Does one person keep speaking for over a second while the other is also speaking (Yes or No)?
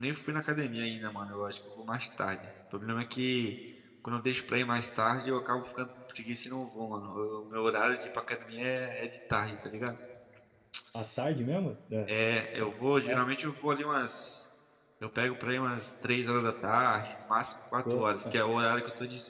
No